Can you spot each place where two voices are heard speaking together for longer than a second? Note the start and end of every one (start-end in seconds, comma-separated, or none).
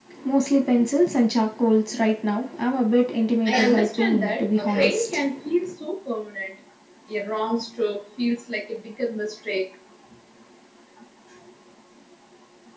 3.5-5.2